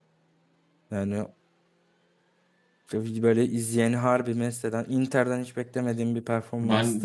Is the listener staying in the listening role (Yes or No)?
No